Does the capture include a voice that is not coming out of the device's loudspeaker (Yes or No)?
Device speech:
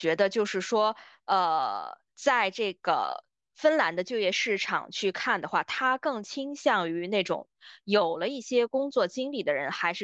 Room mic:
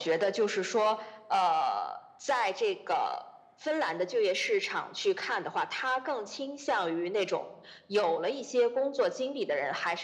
No